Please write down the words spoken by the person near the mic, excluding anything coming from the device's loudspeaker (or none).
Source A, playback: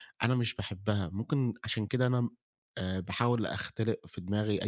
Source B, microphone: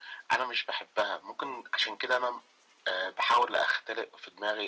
none